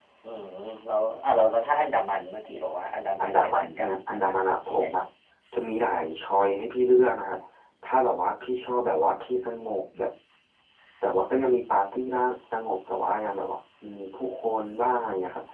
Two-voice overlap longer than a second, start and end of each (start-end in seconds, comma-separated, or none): 3.2-5.0